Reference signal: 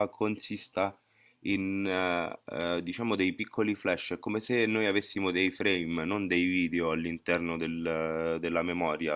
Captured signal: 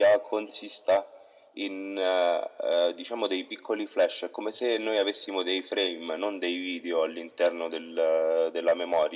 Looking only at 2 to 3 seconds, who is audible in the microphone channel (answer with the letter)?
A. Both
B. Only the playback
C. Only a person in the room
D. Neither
B